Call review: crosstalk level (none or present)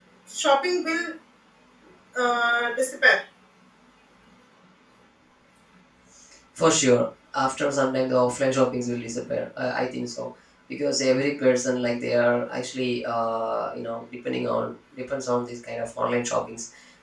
none